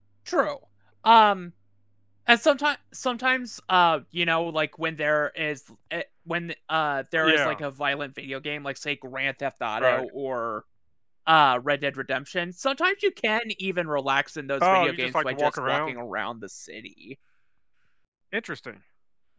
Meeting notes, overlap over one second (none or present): present